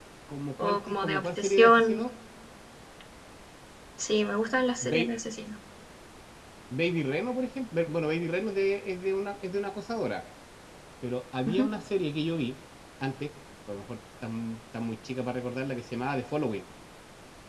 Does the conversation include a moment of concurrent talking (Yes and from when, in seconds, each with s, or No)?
Yes, from 0.6 s